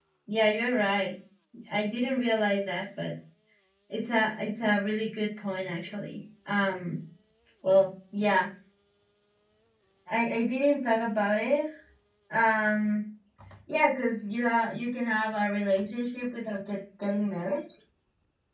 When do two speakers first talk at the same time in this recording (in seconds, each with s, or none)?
none